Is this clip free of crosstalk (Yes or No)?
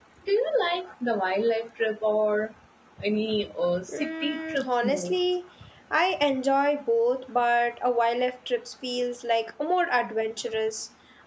No